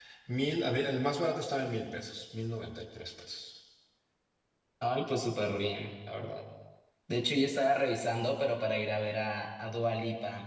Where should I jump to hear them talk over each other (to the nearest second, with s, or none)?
none